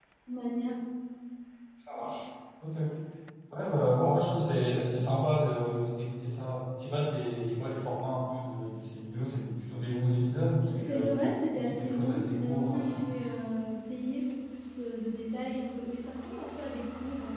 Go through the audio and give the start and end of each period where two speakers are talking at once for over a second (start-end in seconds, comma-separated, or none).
11.6-12.9